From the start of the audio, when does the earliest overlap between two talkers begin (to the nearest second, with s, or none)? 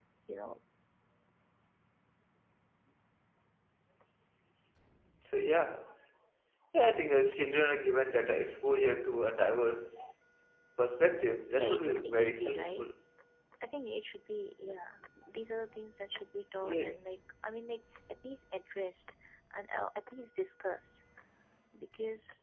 12 s